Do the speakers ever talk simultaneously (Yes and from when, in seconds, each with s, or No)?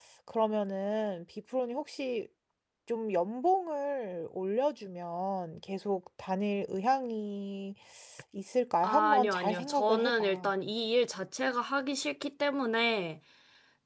Yes, from 8.8 s